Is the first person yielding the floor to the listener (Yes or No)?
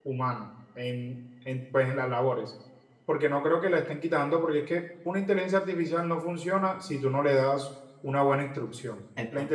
No